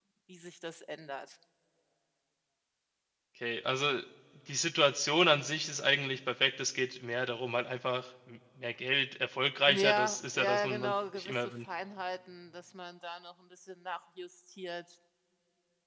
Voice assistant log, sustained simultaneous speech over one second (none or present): present